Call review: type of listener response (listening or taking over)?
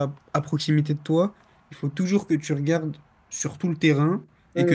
listening